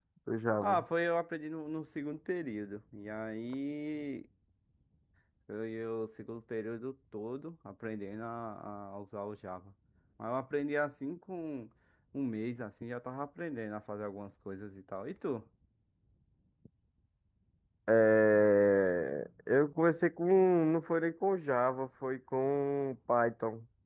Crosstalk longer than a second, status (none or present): none